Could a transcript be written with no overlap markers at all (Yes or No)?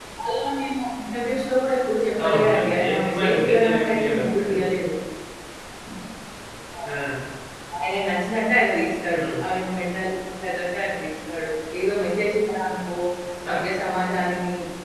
No